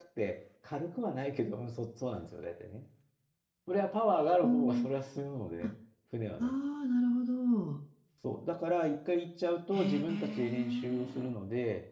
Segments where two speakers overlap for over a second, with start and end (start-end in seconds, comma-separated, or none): 9.7-11.3